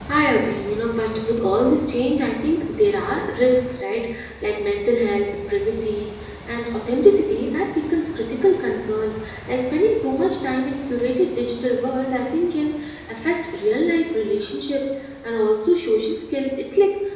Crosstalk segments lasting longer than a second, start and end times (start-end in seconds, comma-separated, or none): none